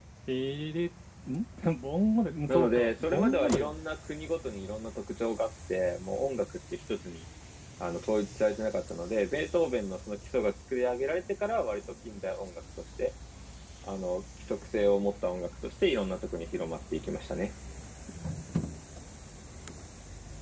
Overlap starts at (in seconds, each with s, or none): 2.5 s